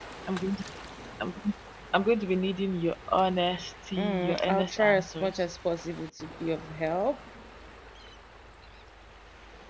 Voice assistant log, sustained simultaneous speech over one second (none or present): present